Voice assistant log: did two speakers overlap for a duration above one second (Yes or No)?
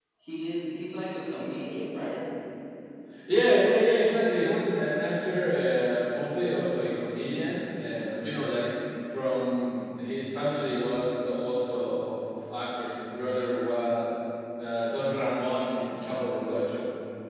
No